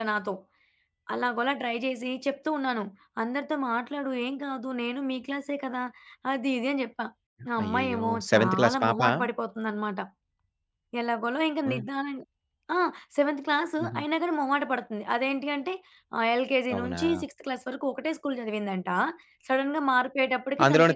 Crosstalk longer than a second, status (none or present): present